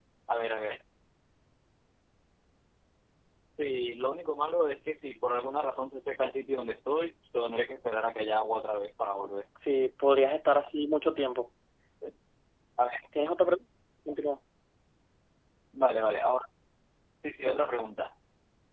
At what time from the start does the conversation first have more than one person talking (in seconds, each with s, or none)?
none